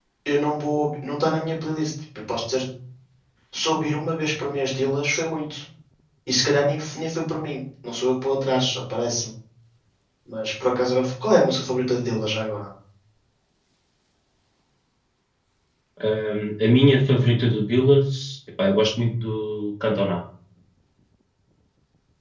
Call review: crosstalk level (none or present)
none